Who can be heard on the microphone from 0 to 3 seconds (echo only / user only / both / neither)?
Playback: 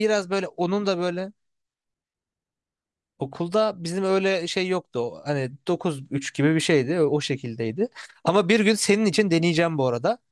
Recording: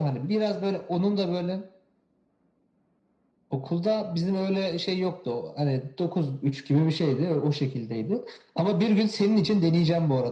echo only